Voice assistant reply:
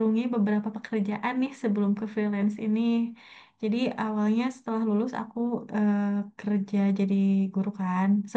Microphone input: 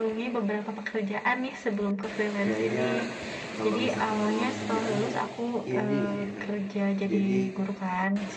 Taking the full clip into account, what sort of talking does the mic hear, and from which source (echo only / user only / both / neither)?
both